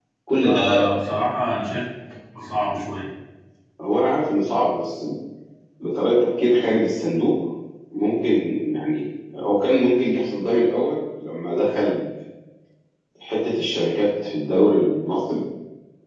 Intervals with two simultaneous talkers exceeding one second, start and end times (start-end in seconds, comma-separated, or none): none